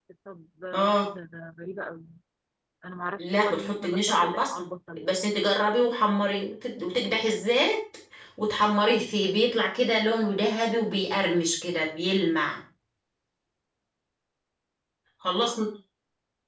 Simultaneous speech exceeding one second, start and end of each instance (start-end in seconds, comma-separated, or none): 3.2-4.5